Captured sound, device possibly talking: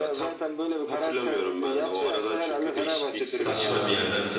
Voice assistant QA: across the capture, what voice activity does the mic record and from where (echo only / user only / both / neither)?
both